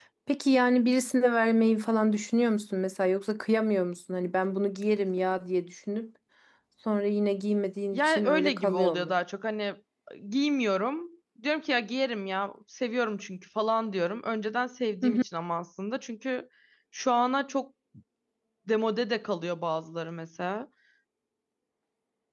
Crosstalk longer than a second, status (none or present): present